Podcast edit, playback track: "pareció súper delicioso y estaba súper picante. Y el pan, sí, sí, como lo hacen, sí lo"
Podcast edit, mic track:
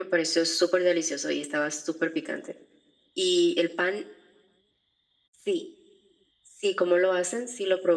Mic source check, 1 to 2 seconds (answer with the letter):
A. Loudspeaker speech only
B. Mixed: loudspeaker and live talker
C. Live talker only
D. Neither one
A